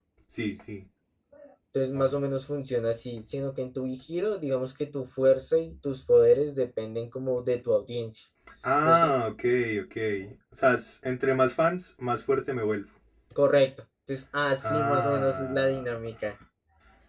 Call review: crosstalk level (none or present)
present